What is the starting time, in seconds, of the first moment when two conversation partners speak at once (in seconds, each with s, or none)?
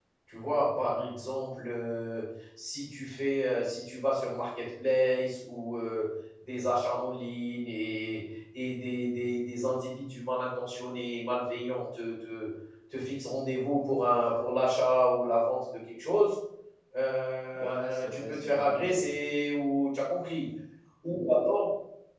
17.5 s